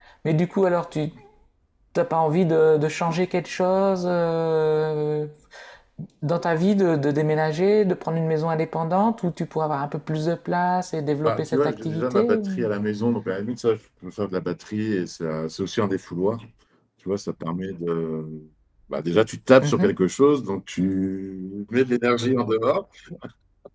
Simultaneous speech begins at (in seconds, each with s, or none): 11.2 s